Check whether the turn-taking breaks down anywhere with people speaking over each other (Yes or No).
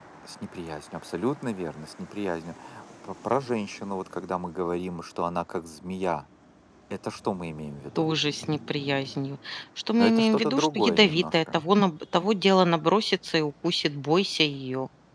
Yes